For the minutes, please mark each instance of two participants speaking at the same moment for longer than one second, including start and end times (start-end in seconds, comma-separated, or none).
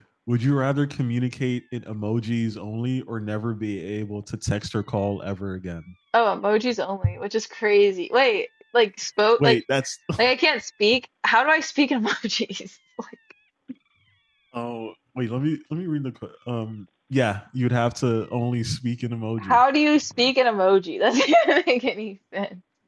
none